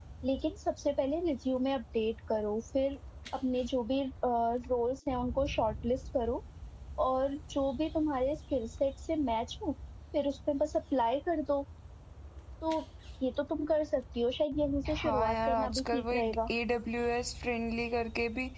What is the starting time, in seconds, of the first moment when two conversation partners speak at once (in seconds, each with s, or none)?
14.8 s